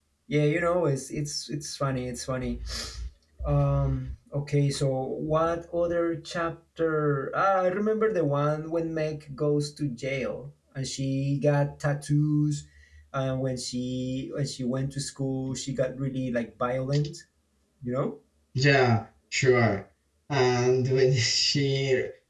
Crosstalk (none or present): none